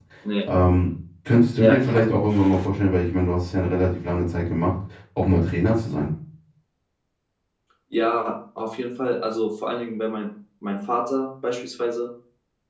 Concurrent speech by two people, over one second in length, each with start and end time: none

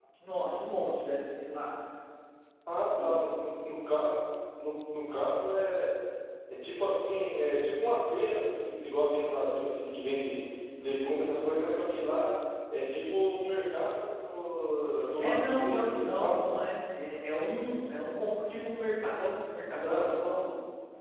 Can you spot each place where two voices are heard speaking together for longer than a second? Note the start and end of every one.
15.2-16.4

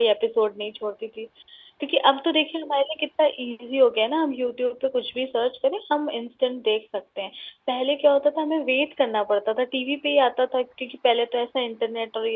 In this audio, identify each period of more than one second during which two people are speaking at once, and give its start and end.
none

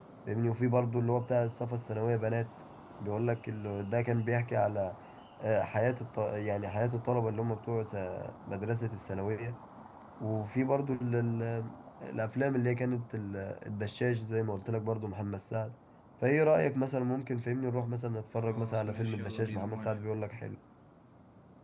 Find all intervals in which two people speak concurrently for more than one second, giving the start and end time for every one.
18.4-20.0

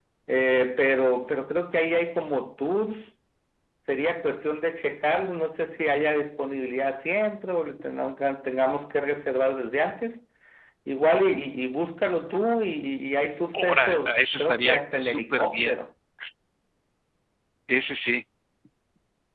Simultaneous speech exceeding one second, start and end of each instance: 13.5-15.8

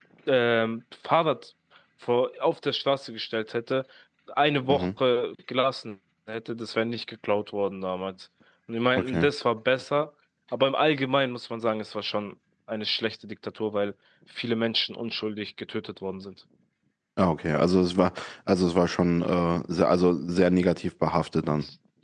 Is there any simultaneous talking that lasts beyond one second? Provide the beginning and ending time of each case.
none

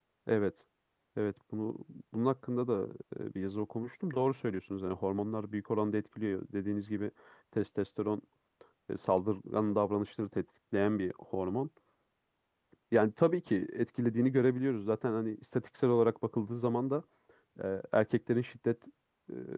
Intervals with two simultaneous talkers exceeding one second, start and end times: none

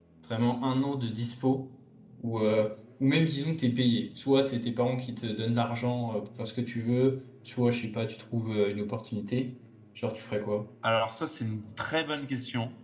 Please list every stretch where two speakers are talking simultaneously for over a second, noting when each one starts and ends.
none

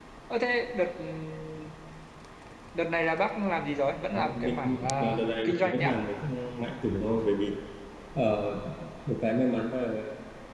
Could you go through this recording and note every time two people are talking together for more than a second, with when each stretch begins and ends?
4.1-6.0

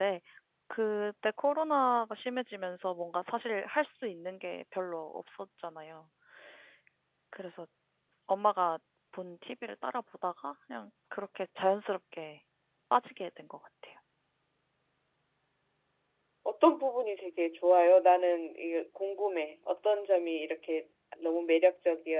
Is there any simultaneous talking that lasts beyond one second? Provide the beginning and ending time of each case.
none

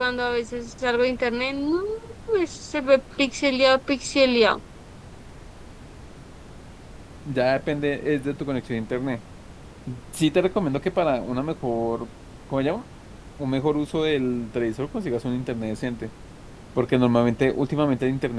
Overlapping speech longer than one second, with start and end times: none

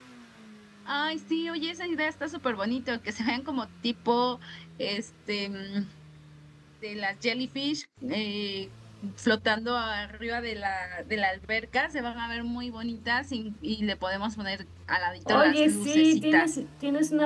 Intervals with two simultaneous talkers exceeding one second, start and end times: 15.3-16.5

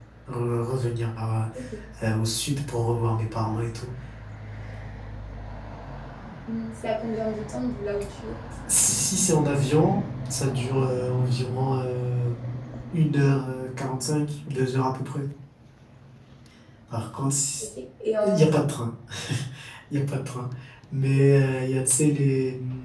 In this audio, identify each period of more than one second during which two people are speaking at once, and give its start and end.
none

